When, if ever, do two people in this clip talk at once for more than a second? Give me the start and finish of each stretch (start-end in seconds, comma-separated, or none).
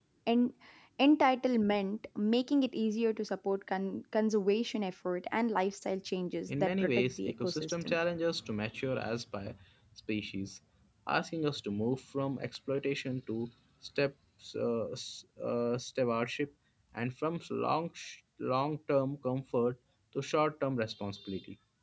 6.6-8.0